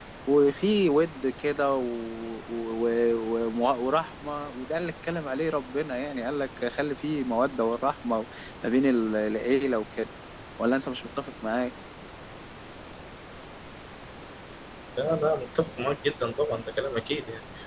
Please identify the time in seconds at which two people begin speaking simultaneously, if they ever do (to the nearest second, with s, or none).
none